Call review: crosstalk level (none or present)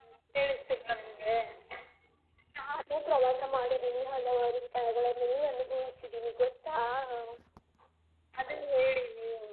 none